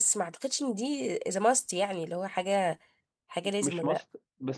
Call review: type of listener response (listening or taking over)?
taking over